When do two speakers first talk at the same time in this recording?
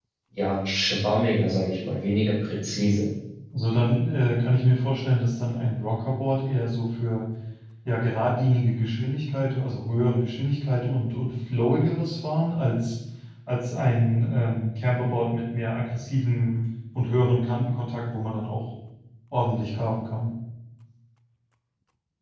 none

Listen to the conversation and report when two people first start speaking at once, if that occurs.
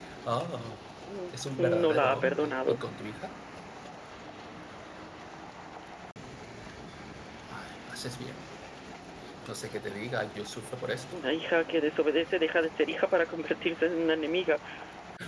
1.3 s

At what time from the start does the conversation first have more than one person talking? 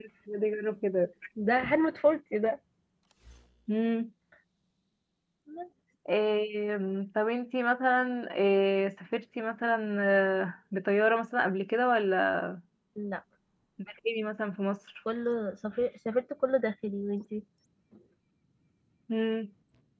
none

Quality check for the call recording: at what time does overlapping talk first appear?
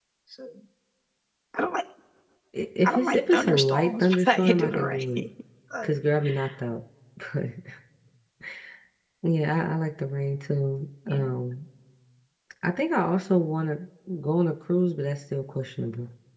2.8 s

